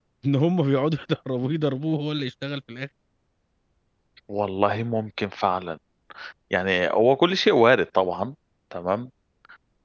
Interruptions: none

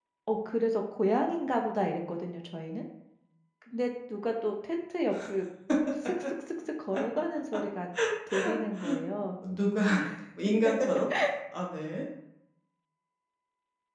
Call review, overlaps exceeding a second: none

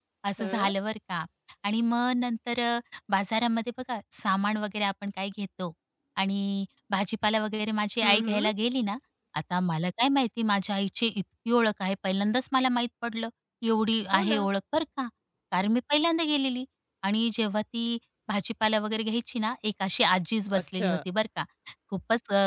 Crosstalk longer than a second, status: none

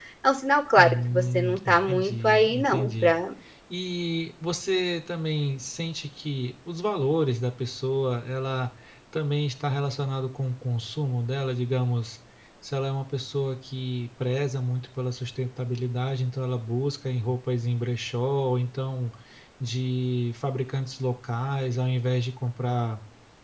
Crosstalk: present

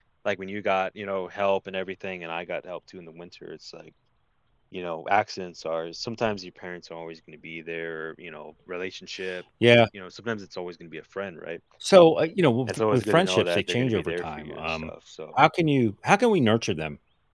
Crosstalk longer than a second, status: present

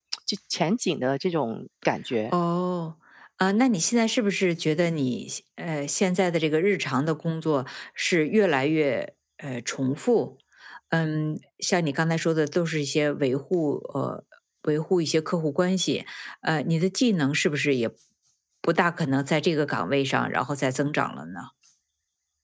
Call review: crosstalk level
none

